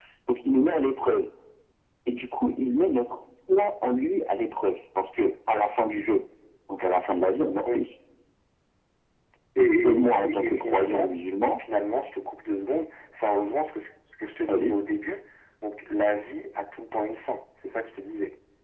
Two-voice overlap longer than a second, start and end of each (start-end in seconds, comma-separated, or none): 9.6-11.1